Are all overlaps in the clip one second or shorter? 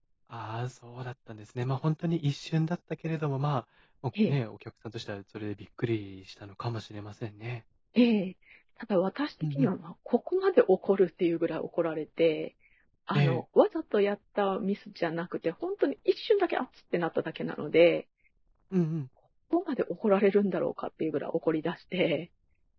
Yes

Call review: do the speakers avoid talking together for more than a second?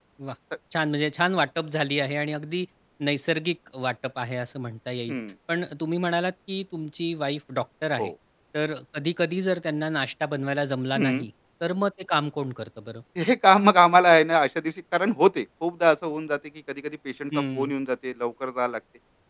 Yes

